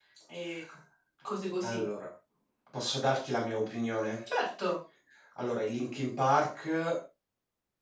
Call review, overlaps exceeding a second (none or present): none